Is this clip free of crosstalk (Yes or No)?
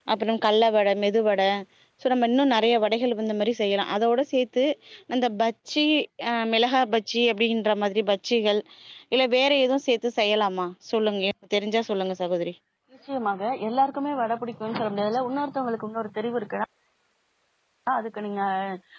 Yes